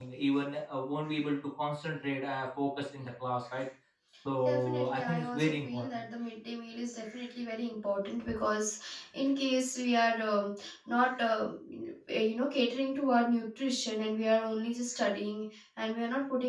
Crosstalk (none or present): present